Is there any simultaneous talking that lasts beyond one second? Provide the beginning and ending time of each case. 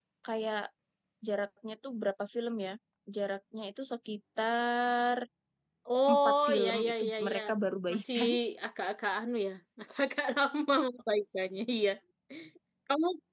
6.1-7.4

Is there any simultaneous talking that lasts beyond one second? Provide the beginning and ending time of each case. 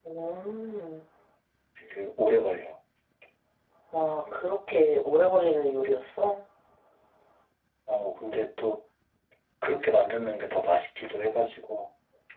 none

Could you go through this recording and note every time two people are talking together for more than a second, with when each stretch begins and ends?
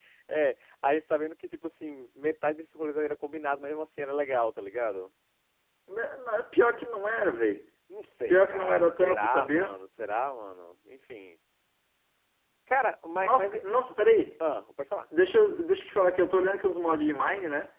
8.3-9.8

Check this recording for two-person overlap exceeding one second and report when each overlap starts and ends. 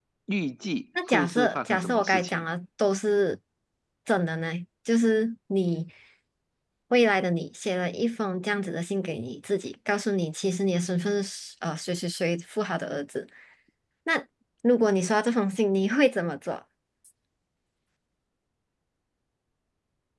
1.1-2.4

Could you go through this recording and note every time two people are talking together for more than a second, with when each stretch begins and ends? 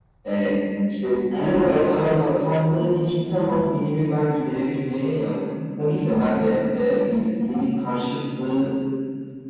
1.3-2.8

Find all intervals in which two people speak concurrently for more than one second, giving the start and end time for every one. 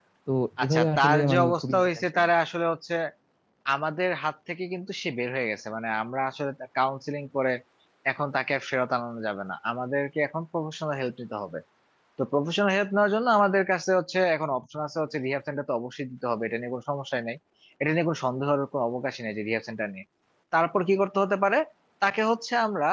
0.6-2.2

